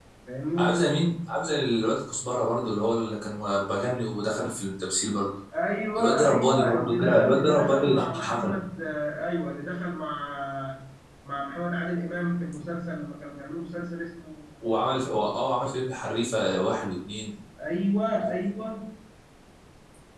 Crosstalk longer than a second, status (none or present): present